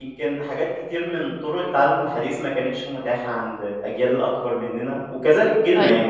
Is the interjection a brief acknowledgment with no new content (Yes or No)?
Yes